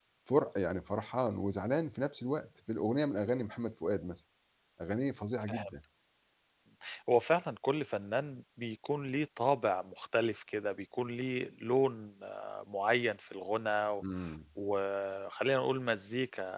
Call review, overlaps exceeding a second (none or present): none